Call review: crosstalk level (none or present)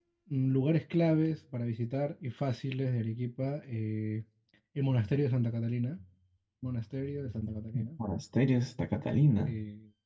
none